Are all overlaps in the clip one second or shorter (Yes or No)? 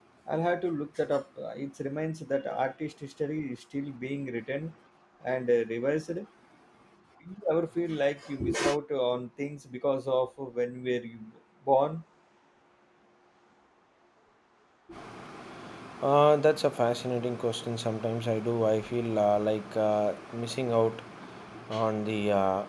Yes